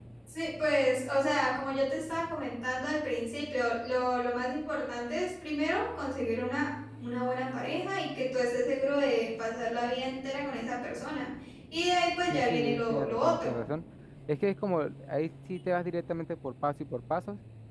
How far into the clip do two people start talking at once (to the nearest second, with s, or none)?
12 s